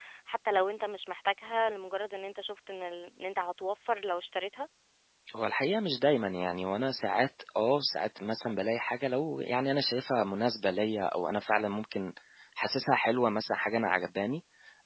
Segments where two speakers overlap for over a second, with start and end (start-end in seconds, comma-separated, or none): none